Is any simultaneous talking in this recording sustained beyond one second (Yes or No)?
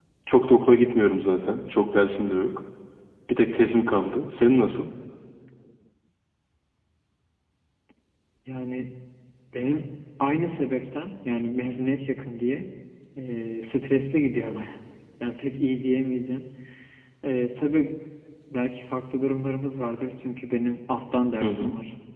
No